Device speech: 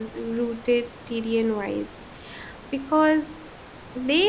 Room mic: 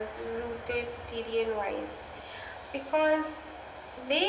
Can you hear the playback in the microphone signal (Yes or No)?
Yes